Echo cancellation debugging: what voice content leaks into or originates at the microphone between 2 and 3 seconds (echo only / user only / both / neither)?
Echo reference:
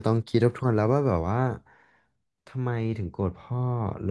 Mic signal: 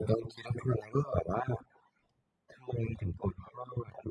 echo only